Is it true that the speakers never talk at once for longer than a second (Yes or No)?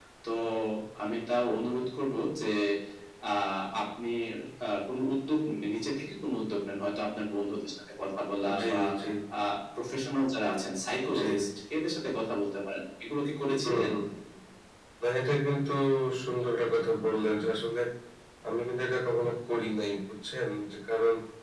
Yes